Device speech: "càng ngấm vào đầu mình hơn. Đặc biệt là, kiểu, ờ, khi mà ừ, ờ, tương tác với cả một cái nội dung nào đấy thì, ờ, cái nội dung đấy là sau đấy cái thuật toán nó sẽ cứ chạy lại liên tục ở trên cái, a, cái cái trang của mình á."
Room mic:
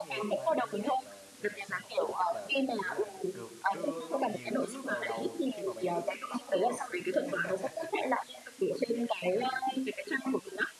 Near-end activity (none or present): present